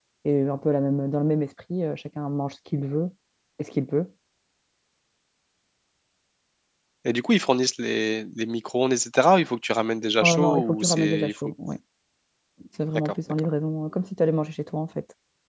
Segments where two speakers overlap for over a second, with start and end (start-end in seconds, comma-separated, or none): 10.2-11.5